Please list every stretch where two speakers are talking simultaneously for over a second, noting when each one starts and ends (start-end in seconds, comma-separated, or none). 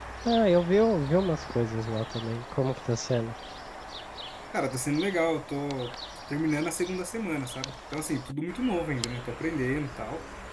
none